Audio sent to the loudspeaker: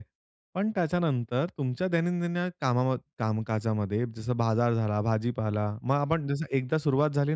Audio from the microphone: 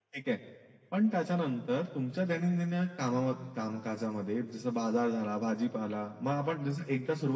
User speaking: No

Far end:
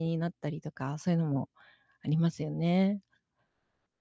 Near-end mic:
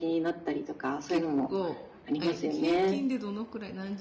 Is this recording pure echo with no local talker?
No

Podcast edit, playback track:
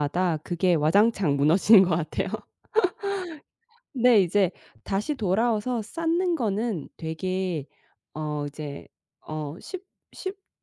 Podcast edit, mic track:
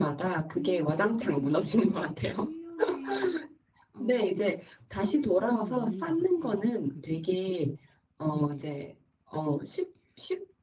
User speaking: Yes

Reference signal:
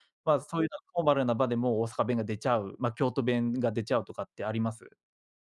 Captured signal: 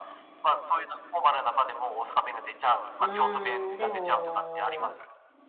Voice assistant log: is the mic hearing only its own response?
No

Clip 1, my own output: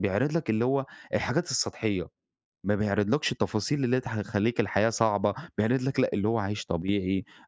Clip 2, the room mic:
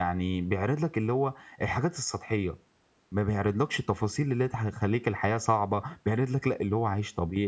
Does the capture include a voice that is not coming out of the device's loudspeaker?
No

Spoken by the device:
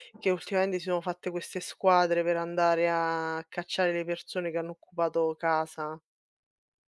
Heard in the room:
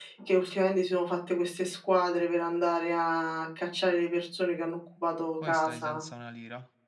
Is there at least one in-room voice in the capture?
Yes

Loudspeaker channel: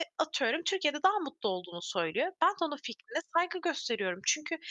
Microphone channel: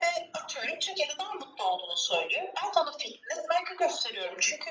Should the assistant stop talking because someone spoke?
No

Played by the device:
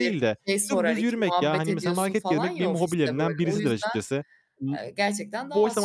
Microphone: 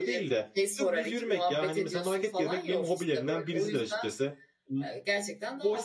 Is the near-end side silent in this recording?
Yes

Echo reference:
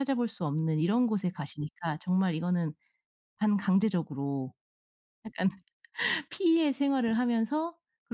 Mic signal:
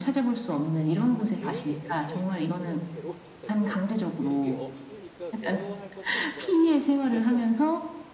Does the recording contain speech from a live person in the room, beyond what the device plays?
Yes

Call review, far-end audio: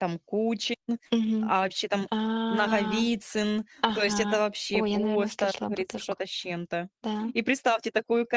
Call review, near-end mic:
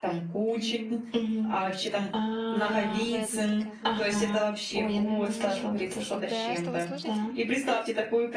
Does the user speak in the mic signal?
Yes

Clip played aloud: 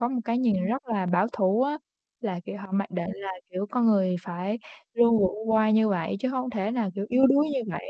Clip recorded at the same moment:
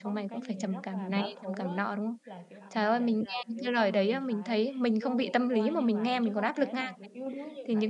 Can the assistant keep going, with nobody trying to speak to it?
No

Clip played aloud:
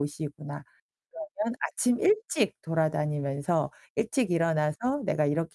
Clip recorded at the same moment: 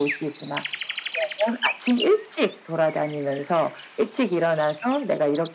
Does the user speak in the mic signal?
No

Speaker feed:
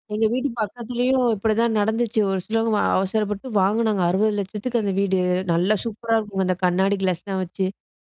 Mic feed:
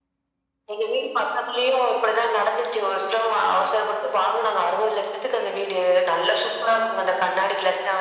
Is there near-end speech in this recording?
No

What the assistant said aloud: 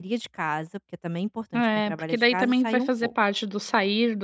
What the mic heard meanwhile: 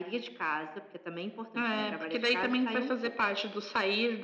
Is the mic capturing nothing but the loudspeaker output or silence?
No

